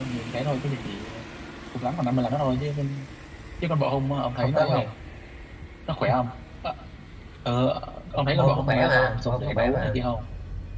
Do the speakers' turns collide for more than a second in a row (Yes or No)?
Yes